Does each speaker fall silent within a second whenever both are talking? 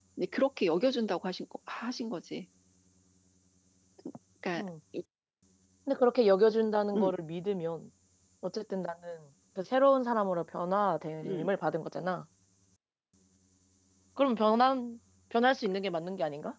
Yes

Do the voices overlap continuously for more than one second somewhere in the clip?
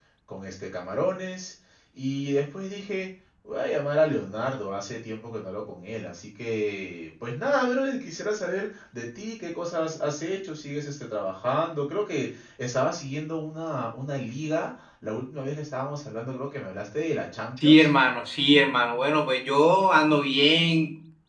No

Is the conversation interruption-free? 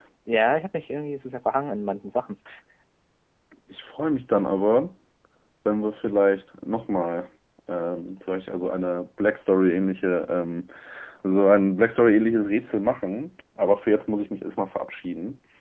Yes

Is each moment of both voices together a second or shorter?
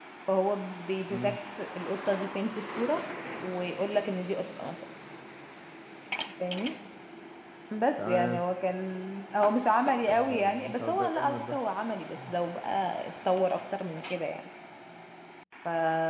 No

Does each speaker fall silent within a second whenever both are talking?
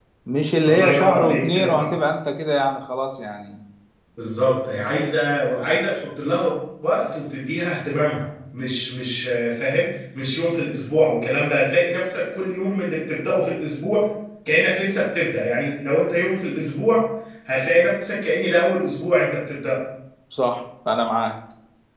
No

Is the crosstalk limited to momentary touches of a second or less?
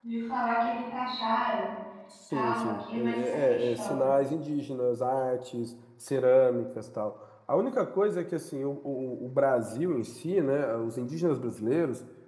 No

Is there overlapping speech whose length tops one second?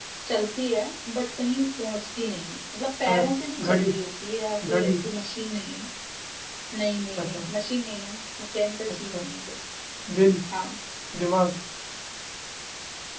No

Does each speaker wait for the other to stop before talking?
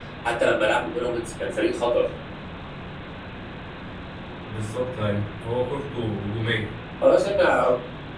Yes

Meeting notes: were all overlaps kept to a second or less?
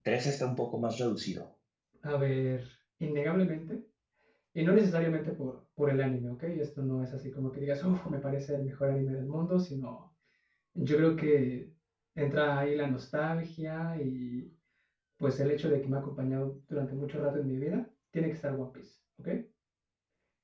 Yes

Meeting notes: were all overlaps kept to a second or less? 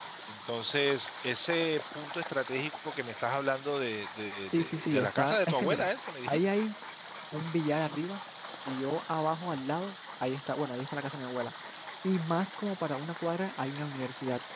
No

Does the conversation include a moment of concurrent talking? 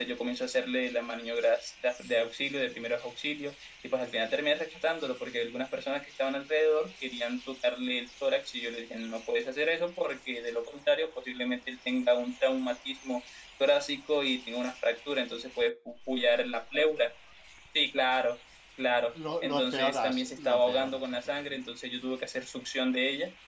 Yes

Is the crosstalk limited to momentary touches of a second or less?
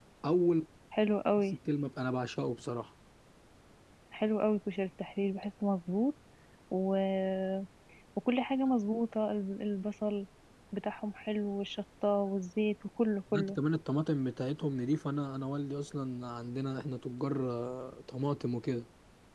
Yes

